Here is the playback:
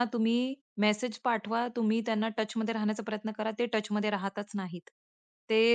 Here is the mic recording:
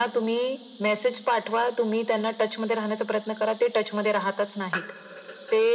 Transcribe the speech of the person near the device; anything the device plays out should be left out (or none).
none